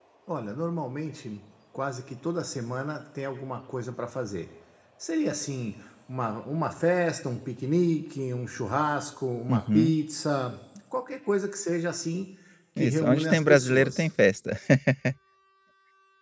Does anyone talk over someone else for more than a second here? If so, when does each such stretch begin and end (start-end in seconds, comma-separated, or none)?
12.8-14.1